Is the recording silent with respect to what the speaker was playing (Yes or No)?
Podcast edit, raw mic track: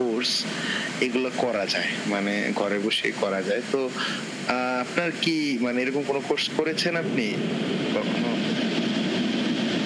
No